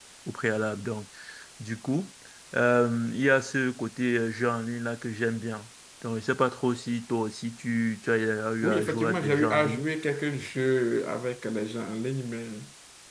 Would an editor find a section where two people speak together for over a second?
Yes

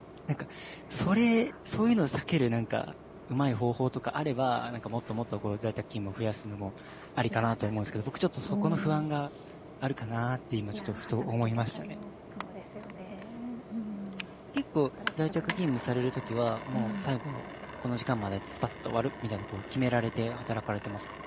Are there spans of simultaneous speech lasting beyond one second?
Yes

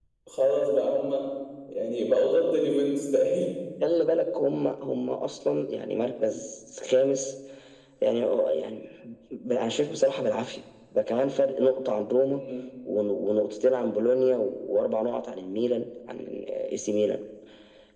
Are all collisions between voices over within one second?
Yes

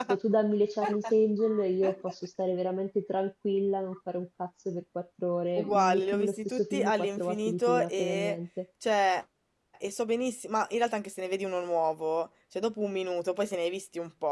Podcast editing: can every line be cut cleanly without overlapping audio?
No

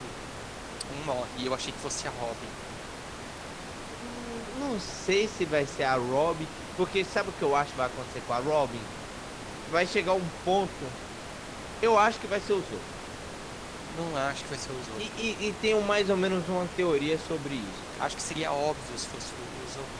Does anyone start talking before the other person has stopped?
No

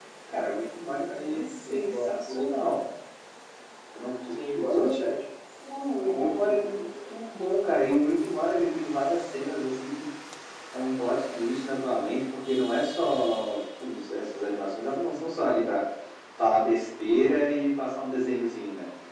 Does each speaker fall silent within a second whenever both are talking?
No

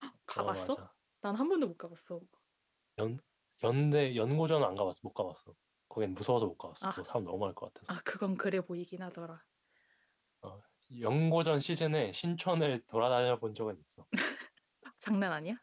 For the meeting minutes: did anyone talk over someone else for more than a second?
No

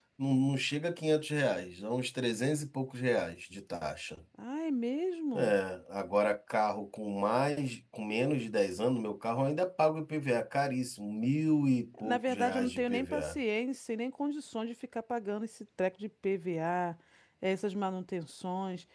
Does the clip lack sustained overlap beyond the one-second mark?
No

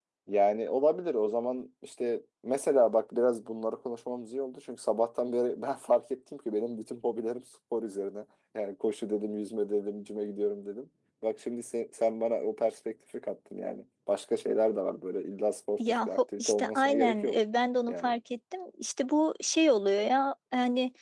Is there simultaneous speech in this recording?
Yes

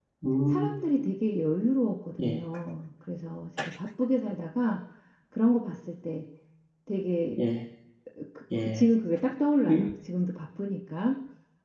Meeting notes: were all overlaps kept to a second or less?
Yes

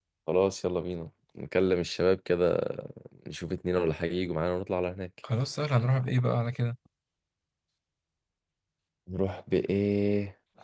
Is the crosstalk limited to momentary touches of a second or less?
Yes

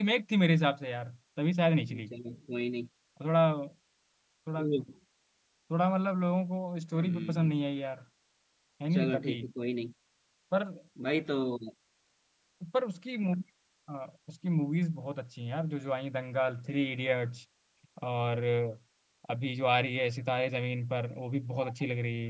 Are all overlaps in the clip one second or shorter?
Yes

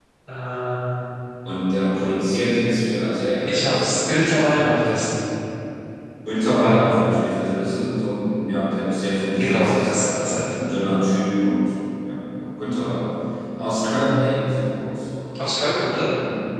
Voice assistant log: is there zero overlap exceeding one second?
No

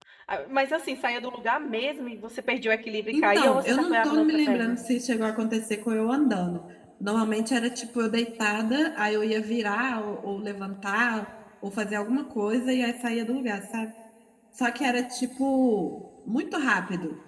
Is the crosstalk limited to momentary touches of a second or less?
No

